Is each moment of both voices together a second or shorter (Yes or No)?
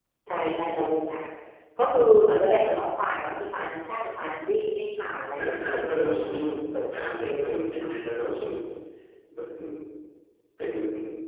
Yes